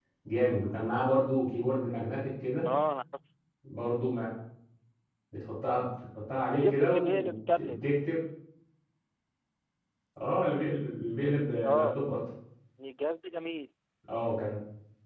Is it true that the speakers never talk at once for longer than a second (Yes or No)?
No